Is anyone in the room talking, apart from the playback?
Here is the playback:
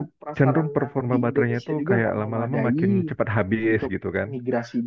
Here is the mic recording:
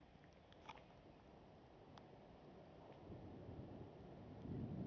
No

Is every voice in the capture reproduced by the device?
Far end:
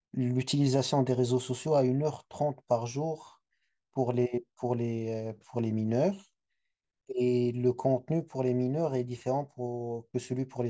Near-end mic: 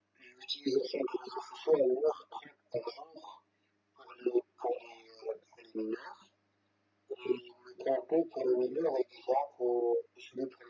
Yes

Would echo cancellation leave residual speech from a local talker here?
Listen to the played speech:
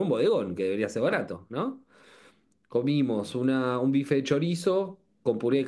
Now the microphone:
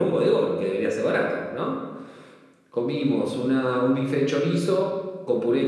No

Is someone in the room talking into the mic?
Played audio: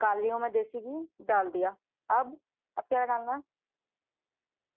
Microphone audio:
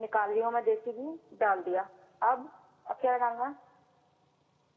No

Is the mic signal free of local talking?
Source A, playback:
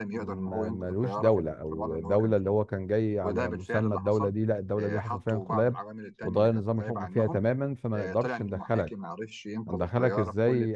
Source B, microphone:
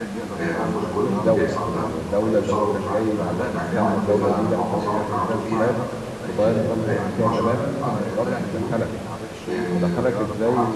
No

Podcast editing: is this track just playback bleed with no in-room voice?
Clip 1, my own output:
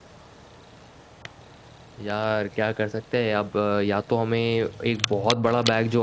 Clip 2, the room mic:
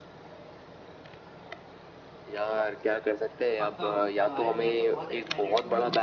No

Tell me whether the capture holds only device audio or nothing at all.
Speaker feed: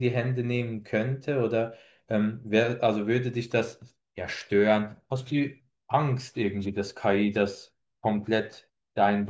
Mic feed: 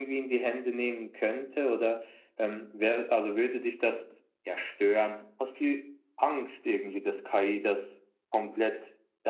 Yes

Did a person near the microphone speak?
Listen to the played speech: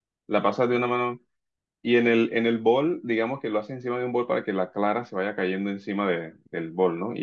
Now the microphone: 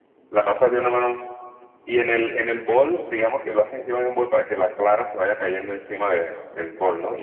No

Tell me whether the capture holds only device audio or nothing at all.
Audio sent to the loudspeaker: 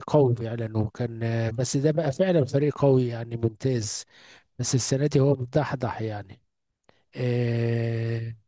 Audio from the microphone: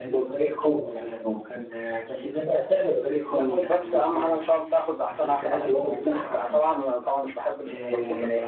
No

